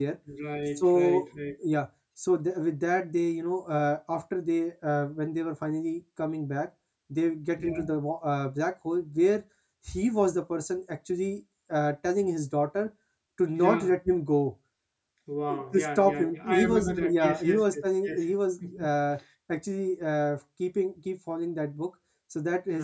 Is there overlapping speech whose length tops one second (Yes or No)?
Yes